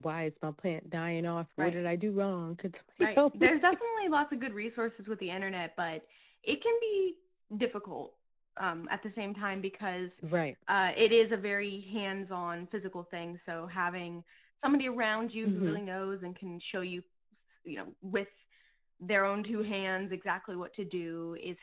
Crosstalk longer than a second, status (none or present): none